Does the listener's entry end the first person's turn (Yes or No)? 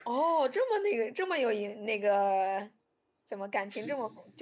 No